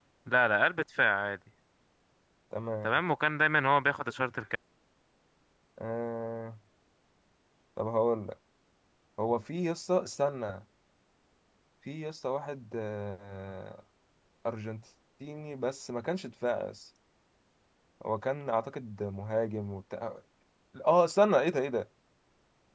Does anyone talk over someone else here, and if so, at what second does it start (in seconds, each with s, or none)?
none